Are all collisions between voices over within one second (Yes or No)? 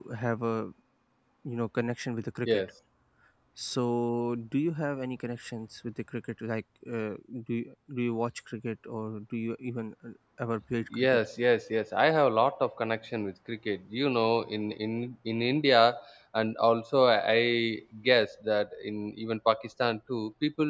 Yes